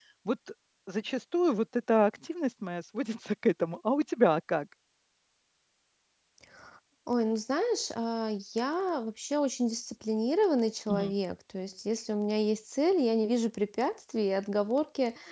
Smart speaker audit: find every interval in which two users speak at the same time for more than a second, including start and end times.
none

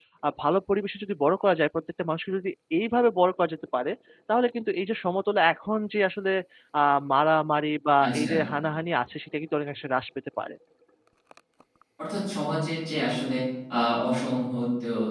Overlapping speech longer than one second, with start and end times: none

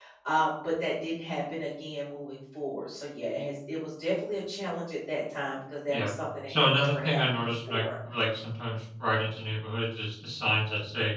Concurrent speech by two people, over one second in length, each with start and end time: 6.5-7.8

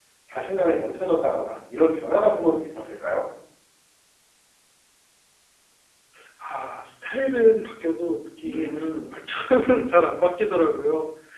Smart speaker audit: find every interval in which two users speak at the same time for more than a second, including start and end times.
none

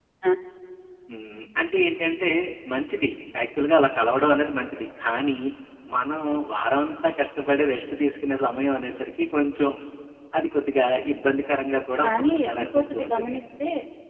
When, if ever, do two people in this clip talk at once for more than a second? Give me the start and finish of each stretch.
12.0-13.4

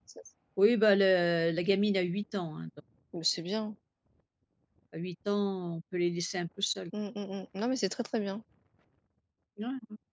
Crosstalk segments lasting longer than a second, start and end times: none

